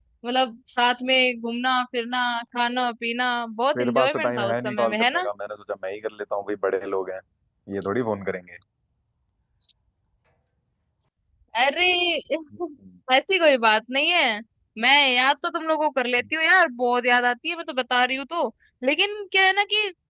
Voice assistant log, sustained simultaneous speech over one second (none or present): present